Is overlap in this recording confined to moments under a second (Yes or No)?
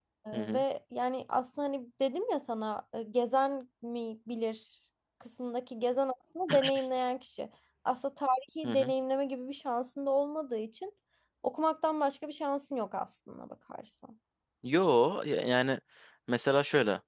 Yes